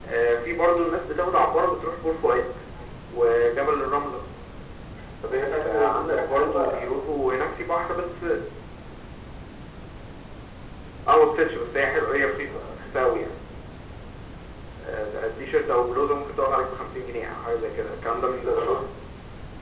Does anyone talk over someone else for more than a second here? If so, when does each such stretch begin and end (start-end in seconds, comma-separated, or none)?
5.5-7.5